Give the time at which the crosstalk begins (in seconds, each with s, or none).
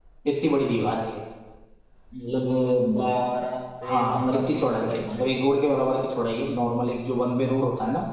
3.8 s